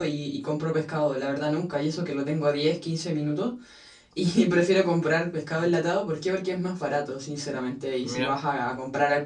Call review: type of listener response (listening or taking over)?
listening